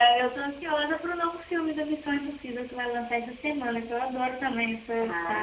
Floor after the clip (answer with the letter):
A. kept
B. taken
B